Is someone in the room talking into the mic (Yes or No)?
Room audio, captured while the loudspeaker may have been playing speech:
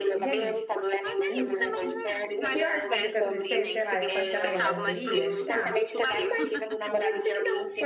Yes